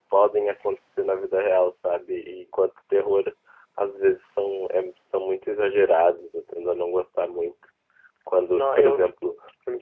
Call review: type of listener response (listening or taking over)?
listening